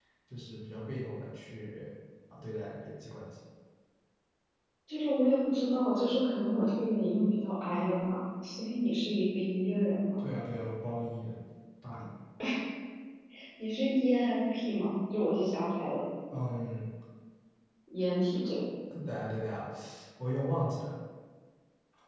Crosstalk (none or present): none